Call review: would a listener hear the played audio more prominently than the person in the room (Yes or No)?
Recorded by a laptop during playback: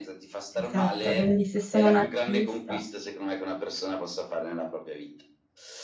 No